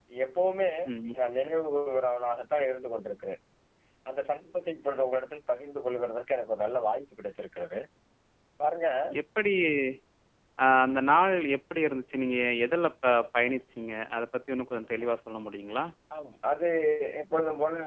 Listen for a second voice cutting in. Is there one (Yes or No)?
No